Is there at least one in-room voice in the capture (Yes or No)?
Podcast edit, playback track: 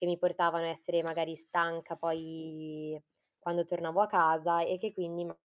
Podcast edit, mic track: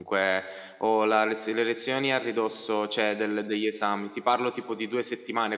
Yes